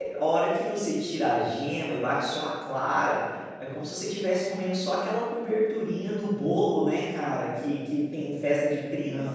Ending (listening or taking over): taking over